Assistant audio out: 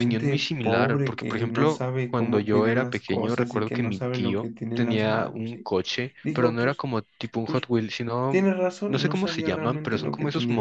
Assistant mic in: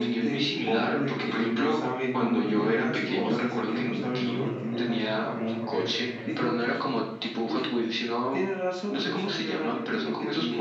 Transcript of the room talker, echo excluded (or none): pues me platicas después qué tal funcionan para, para correr y jugar fucho.